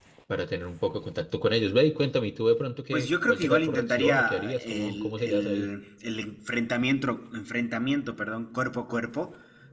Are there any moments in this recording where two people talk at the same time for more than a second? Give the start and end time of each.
2.9-5.7

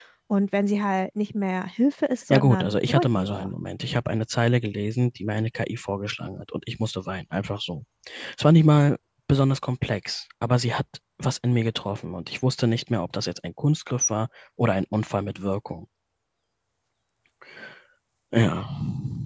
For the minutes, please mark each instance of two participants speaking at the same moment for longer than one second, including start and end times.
2.3-3.5

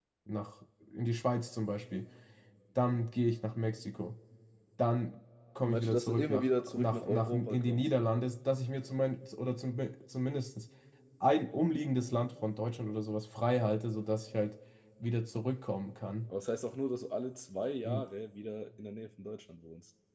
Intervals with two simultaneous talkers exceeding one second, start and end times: 5.7-7.9

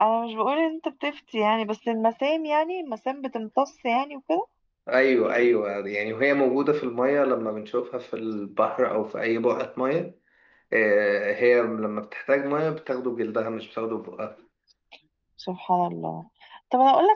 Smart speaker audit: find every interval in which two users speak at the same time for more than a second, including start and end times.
none

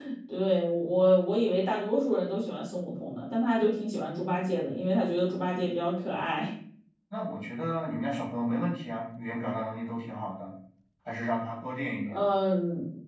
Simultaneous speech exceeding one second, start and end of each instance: none

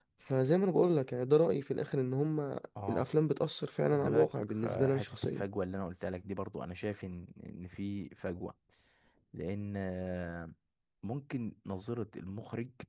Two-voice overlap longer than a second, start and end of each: 3.9-5.4

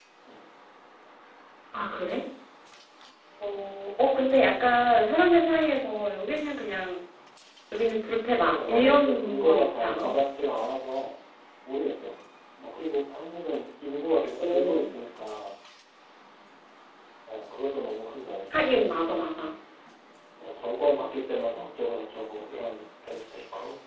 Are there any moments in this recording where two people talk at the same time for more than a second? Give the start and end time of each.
8.4-10.1

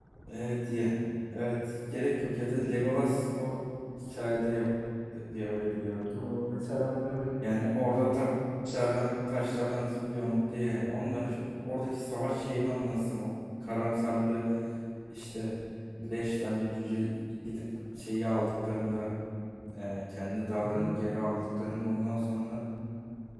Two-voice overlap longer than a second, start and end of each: none

